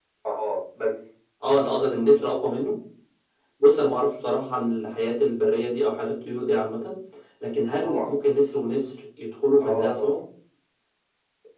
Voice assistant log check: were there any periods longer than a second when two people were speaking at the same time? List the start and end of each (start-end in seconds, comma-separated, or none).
none